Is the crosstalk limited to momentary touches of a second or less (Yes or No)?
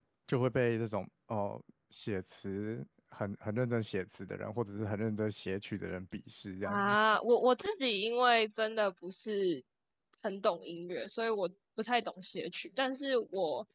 Yes